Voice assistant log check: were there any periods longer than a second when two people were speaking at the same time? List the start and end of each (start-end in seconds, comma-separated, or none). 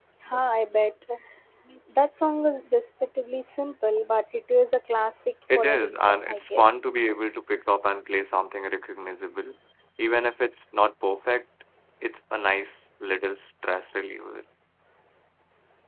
5.6-6.8